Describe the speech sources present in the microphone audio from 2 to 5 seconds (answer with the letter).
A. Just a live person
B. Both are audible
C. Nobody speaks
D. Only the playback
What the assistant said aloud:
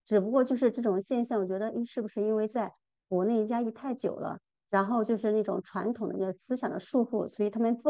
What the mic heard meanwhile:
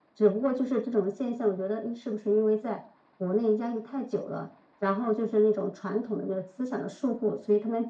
D